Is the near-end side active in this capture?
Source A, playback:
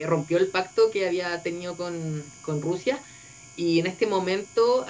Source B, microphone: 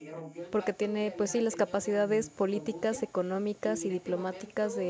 Yes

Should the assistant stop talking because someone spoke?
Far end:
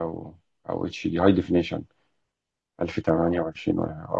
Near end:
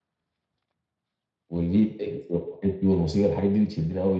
Yes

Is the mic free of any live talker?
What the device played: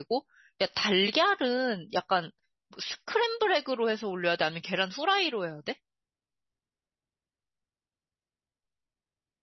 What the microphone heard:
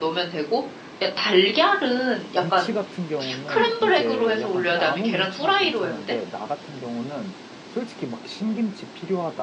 No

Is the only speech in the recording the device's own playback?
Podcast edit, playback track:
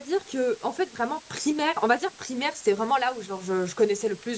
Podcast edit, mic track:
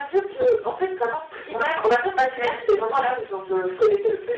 No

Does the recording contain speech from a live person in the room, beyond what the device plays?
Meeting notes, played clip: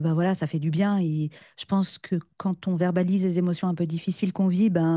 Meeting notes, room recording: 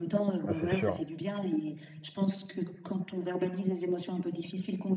Yes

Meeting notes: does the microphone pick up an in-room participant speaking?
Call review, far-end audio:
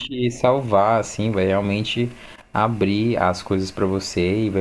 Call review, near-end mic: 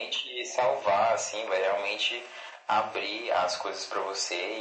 No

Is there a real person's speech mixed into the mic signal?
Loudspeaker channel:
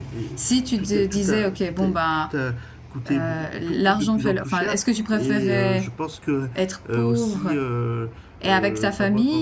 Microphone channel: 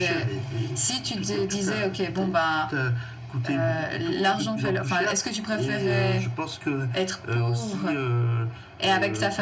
No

